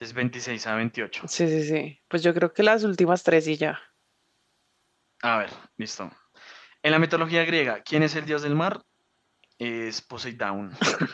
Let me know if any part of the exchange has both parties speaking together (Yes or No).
No